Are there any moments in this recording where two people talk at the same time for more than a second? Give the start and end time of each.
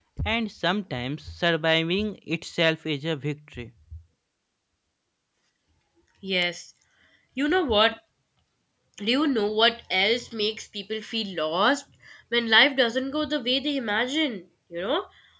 none

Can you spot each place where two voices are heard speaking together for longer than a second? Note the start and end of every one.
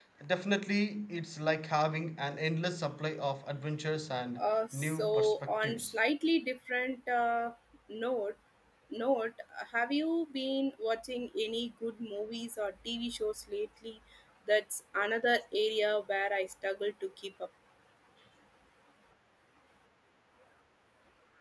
4.4-5.9

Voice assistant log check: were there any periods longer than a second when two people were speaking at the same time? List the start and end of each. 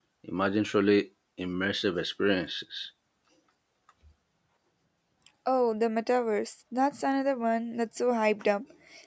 none

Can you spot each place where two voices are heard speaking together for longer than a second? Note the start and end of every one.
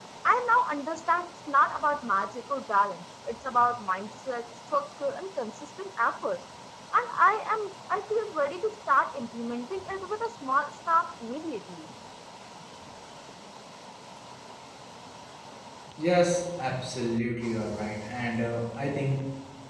none

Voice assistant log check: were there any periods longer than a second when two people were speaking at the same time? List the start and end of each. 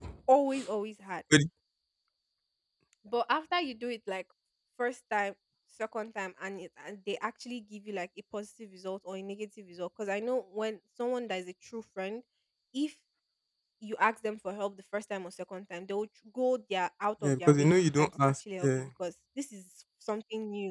17.2-18.9

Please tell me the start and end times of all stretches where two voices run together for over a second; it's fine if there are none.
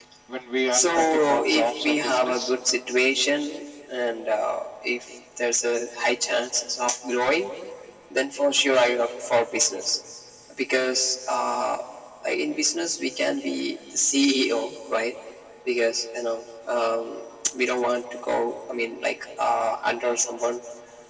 0.7-2.5

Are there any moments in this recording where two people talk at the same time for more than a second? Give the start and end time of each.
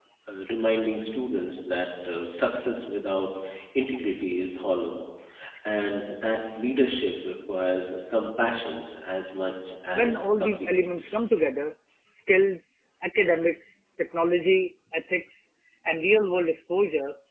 9.9-11.2

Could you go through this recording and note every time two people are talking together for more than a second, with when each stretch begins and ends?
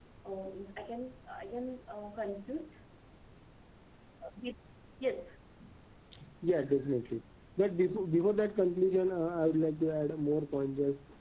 none

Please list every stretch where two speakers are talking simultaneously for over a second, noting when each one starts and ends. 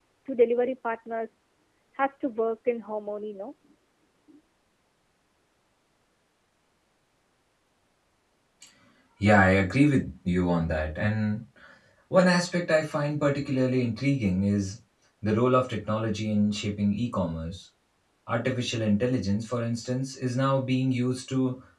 none

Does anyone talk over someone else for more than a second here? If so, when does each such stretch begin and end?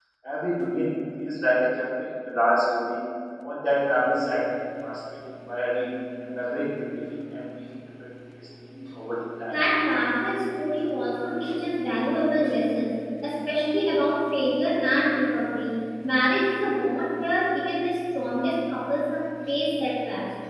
none

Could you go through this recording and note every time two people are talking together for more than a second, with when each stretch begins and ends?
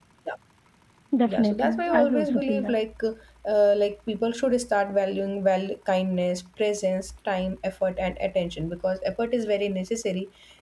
1.3-2.8

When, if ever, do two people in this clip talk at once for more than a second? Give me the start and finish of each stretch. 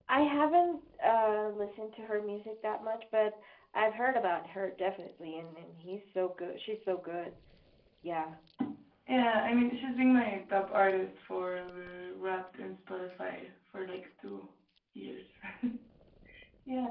none

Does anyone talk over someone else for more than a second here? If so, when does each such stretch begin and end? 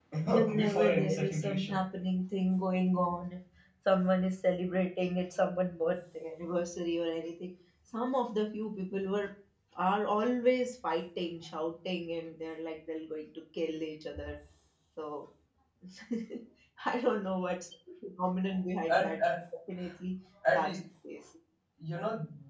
0.5-1.8

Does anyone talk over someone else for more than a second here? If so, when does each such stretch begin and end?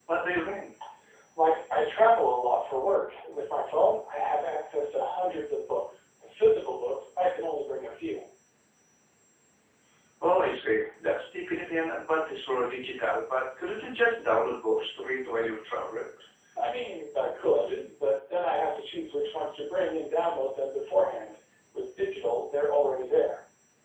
none

